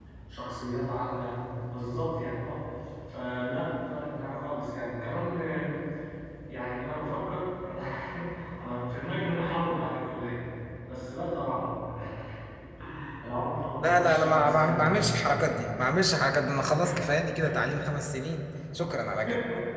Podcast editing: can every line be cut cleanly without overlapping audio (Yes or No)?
No